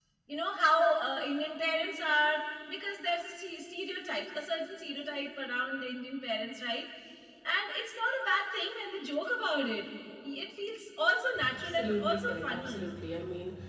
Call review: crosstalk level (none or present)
present